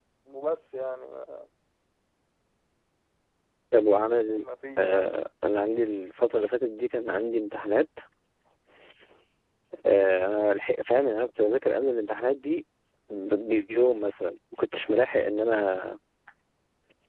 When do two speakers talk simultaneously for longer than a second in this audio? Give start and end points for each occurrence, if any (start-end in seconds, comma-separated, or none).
none